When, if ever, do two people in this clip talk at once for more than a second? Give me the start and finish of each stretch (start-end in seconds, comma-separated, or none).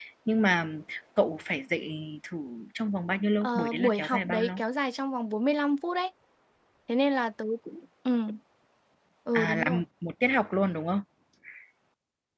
3.4-4.6